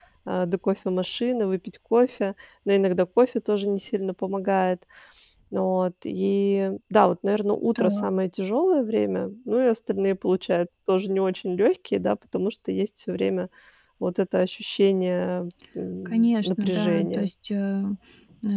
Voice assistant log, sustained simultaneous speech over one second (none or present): present